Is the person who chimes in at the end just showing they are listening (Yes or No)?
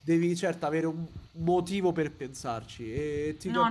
Yes